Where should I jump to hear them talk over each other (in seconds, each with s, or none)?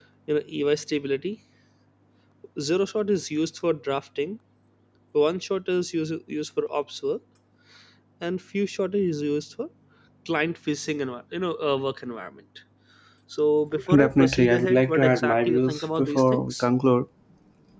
13.9 s